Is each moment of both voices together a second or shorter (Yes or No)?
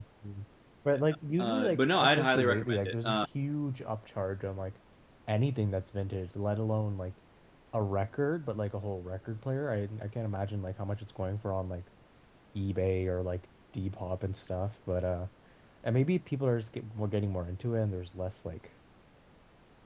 No